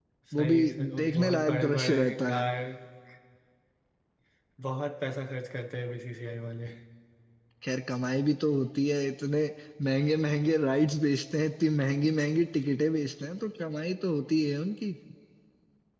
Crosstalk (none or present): present